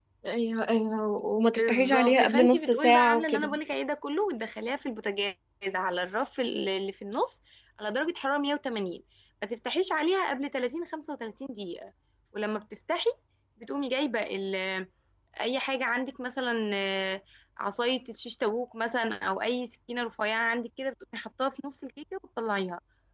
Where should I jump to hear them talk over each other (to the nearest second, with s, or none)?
2 s